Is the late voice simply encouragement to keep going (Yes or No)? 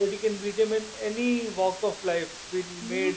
Yes